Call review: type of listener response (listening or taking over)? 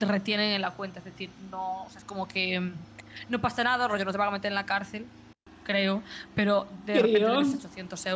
listening